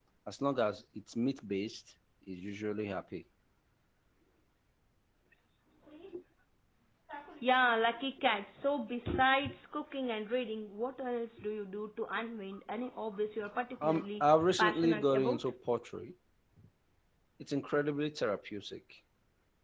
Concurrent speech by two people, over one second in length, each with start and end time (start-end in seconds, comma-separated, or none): 13.8-15.5